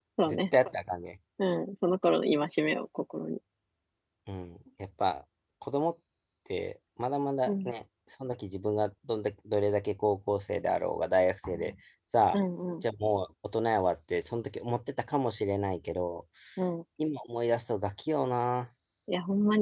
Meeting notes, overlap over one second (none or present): none